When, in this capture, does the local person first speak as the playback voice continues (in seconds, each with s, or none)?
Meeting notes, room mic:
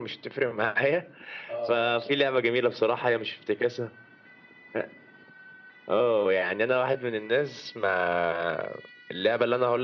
1.5 s